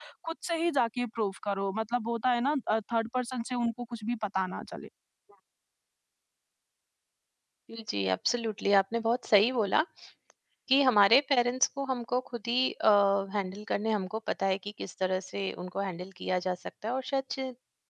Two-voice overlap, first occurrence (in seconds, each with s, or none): none